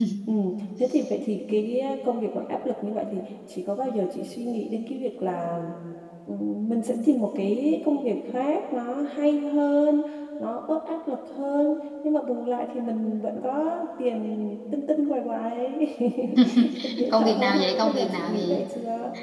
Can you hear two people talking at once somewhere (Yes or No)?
Yes